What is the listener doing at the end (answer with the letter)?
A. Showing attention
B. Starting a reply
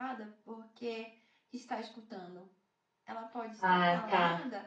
A